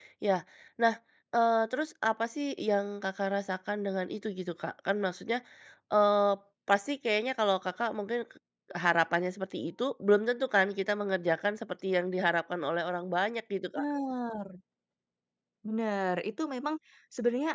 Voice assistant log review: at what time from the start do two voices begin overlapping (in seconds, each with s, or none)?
none